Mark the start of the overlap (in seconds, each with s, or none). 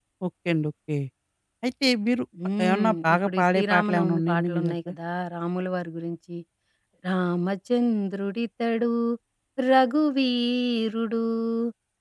2.7 s